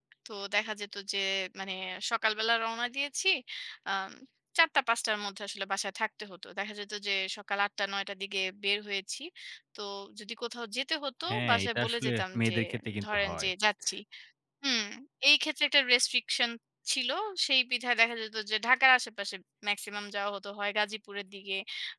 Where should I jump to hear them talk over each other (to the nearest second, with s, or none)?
11 s